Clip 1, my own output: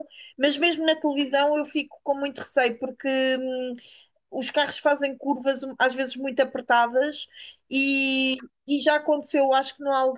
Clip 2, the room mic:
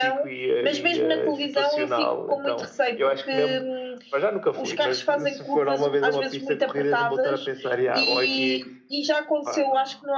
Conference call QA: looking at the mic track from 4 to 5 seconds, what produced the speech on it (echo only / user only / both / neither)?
both